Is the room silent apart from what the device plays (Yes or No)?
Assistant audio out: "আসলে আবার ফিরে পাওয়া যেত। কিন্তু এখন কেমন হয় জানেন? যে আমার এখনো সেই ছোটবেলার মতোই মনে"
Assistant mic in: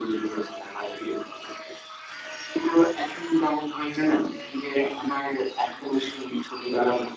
Yes